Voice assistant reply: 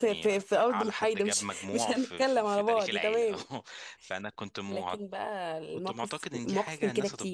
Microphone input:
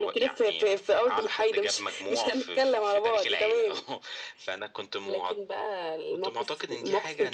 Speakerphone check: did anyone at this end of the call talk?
No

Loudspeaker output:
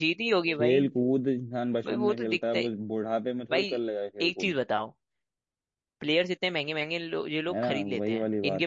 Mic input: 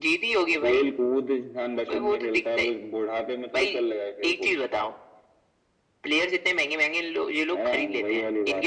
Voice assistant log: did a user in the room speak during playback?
No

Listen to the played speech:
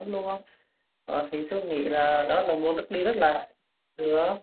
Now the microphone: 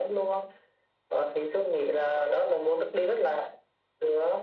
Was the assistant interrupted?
No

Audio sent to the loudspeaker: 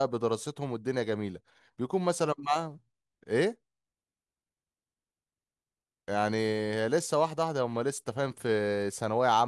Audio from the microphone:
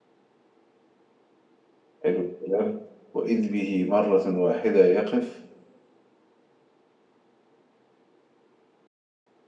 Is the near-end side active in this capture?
Yes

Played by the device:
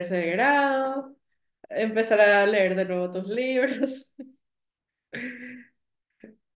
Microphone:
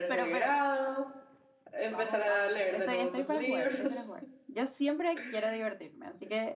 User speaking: Yes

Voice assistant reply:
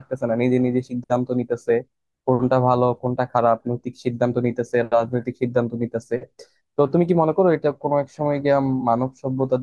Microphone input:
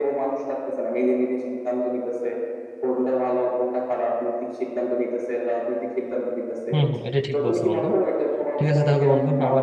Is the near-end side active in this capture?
Yes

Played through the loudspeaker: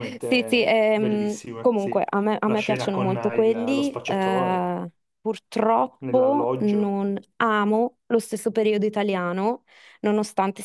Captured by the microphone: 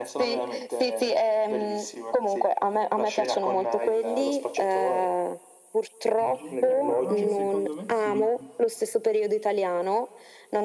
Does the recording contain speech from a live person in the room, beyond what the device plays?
Yes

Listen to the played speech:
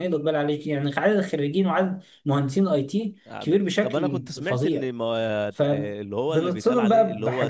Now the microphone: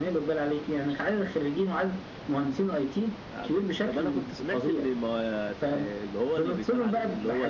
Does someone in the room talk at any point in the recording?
No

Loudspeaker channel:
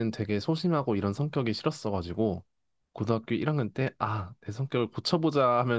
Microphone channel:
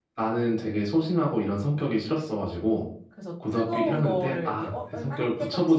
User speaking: Yes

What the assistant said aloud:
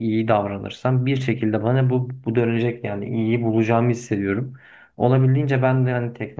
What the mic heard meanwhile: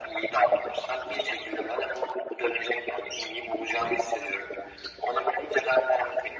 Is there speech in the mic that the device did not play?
No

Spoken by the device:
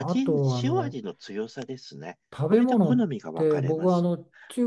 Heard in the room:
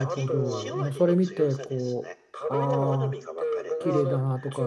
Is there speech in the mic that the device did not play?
Yes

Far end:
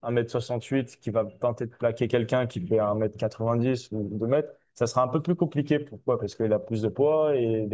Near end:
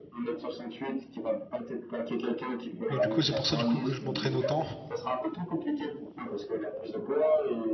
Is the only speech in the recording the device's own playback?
No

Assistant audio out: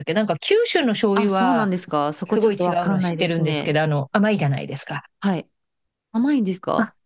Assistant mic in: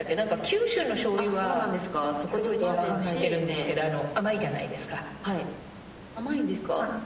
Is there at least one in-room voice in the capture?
Yes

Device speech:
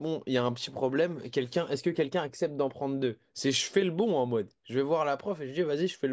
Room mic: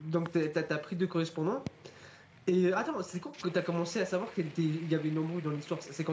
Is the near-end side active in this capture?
Yes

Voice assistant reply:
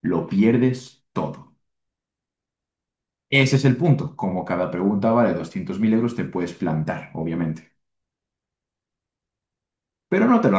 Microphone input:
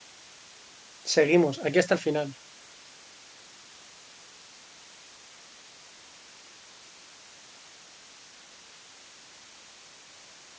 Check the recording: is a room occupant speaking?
Yes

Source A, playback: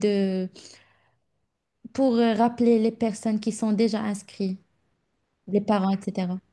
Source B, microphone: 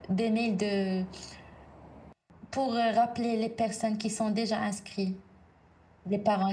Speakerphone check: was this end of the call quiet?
Yes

